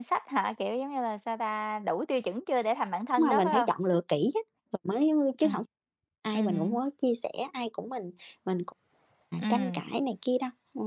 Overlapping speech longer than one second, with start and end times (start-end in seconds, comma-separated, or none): none